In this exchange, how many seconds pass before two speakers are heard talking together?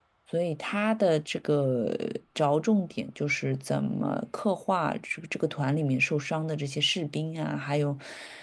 none

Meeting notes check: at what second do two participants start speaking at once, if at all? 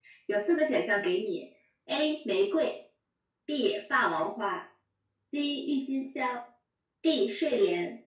none

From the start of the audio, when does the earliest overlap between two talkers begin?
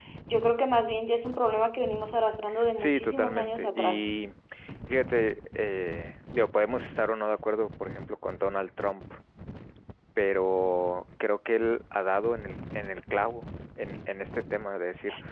3 s

